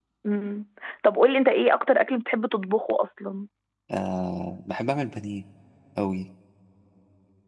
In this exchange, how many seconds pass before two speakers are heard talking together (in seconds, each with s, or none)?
none